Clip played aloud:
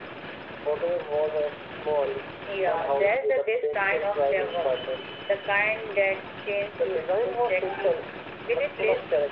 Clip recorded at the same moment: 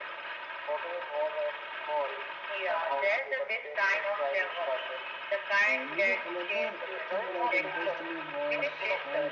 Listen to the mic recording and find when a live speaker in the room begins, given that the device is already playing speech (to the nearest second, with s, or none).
6 s